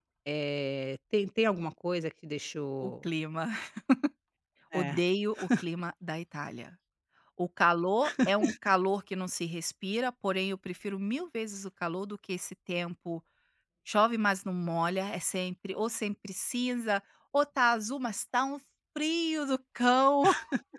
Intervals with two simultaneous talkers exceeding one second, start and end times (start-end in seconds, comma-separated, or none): none